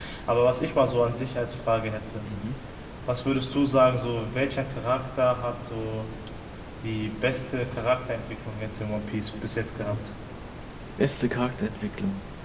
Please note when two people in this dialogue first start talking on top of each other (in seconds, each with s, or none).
none